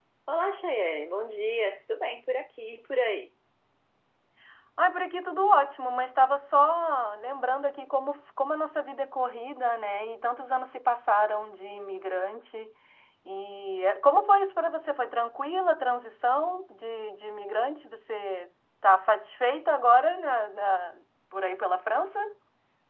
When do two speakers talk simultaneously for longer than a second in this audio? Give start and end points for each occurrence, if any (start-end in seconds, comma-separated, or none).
none